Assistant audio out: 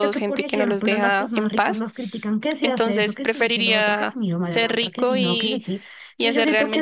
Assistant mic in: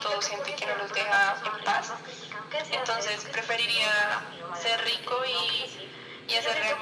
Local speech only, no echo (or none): none